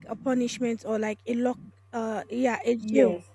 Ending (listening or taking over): taking over